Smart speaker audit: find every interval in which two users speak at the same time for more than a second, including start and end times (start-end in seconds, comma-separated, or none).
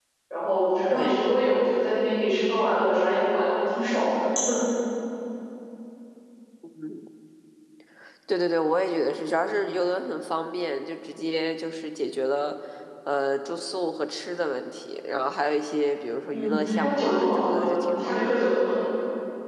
16.3-18.3